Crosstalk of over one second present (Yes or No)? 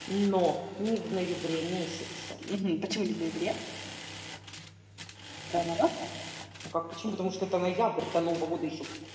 No